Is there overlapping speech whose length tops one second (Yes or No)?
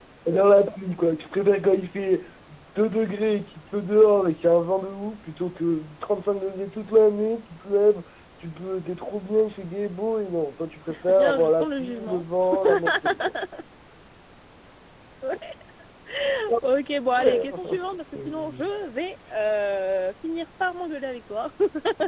Yes